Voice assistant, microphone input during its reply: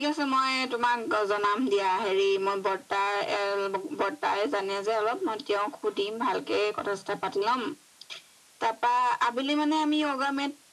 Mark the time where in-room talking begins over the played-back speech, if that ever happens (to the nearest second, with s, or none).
none